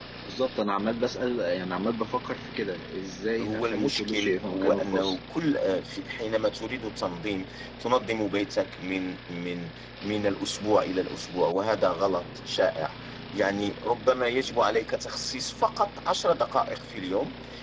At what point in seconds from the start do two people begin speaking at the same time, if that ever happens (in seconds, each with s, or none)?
3.4 s